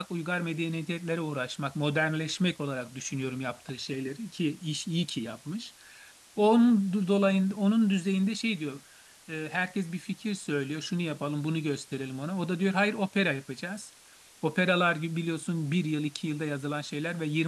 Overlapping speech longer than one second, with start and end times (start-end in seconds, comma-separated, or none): none